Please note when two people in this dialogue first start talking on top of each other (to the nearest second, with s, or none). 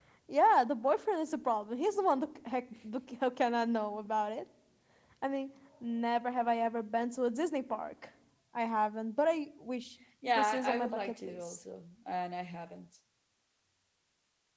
10 s